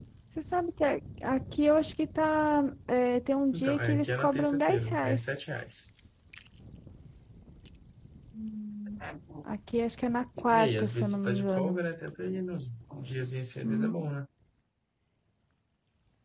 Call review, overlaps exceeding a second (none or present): present